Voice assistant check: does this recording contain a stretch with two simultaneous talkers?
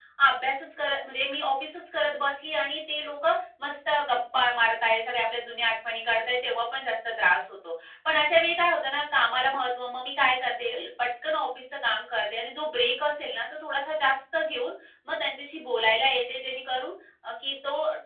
No

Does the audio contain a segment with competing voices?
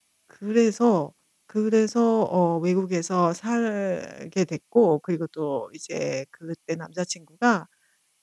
No

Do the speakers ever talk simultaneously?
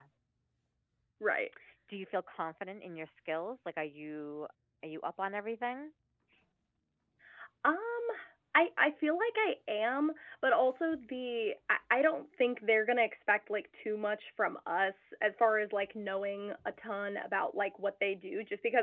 No

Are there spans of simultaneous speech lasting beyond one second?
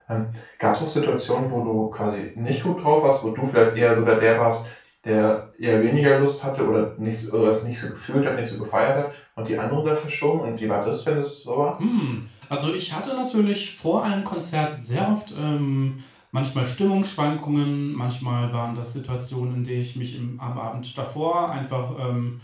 No

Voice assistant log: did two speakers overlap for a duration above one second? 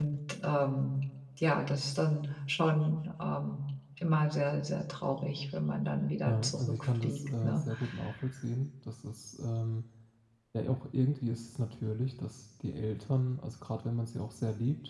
Yes, from 6.3 s

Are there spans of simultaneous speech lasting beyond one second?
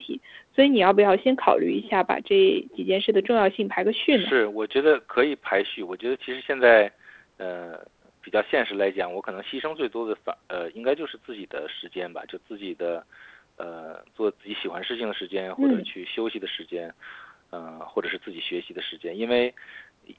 No

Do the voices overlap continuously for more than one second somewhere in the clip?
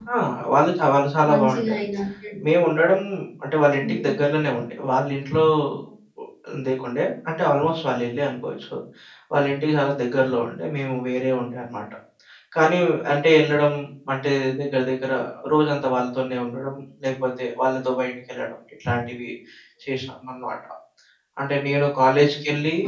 No

